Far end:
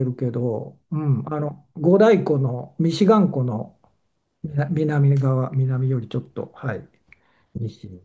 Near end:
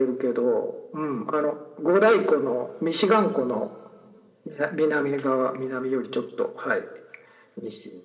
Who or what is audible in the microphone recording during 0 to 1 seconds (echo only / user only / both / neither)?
echo only